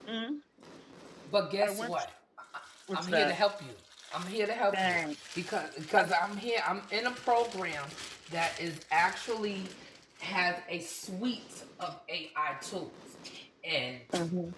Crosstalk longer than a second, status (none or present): none